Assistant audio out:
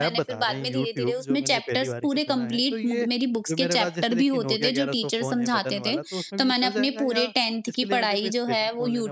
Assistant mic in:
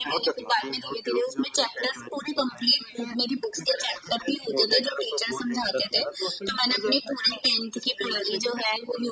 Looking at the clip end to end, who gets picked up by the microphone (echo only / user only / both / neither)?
echo only